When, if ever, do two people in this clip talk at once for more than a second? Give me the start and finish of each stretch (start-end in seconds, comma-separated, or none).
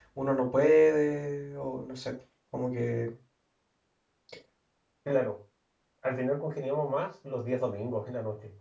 none